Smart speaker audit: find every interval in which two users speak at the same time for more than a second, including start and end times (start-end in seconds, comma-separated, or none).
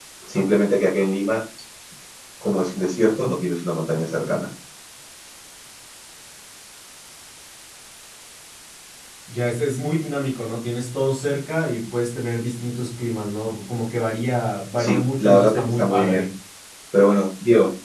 14.8-16.3